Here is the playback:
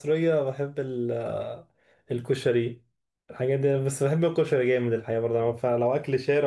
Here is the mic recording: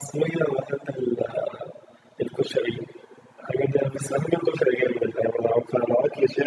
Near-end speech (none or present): none